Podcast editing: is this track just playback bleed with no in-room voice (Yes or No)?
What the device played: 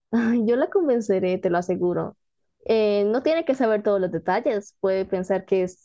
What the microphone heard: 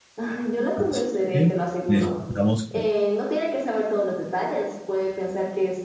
No